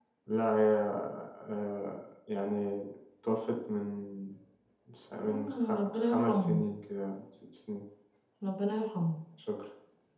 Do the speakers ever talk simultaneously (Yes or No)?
Yes